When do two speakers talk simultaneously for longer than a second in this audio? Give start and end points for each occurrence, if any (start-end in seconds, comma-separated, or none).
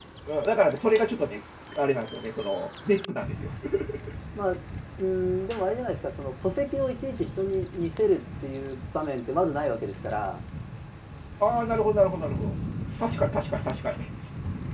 none